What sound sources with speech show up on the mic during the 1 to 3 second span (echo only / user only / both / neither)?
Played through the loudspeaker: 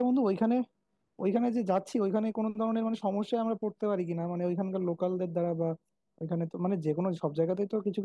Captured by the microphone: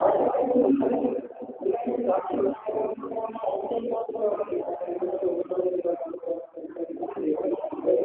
echo only